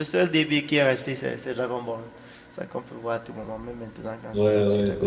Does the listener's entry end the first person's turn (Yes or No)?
Yes